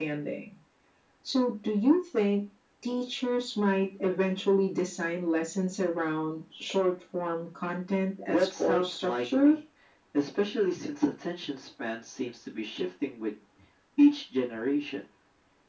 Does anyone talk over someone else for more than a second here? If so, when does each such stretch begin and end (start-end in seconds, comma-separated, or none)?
8.3-9.6